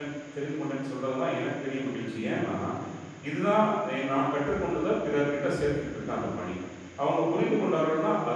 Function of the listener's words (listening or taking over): listening